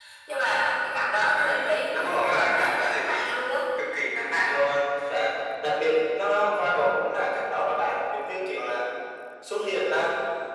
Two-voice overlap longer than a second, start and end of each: 1.3-3.3

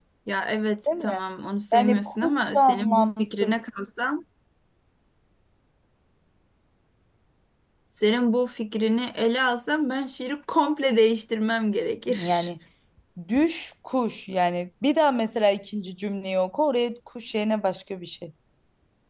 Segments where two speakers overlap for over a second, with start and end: 1.7-3.5

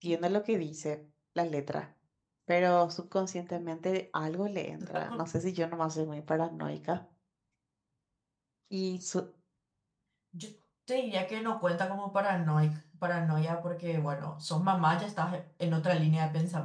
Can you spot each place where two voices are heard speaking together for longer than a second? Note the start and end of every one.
none

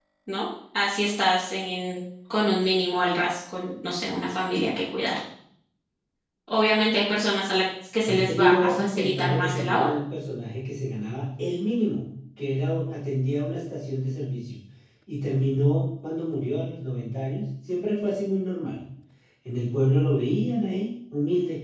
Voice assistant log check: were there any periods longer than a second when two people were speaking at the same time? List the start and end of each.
8.1-10.0

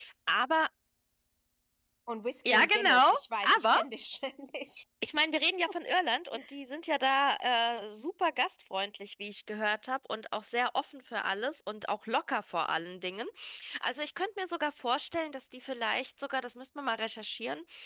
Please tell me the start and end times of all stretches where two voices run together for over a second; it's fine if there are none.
2.5-3.8

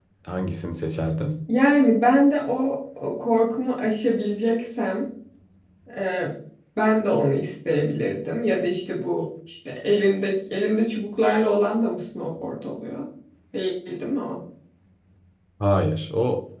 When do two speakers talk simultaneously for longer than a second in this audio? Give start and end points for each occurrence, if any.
none

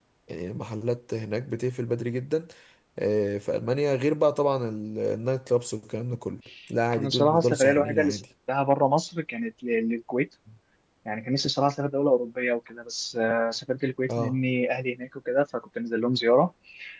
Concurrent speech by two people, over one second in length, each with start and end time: 7.0-8.2

